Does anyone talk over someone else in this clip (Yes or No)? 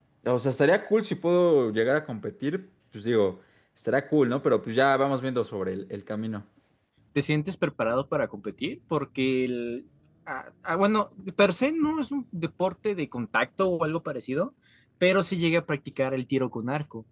No